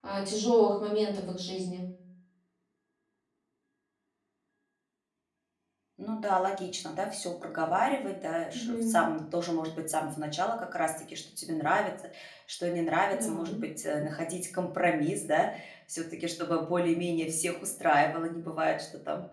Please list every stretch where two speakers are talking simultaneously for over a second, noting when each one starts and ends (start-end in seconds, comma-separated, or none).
none